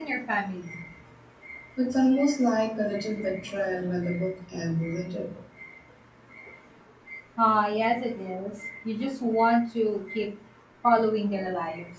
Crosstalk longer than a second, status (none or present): none